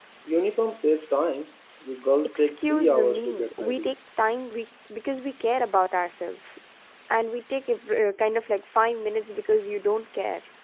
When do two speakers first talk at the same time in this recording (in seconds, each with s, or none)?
2.4 s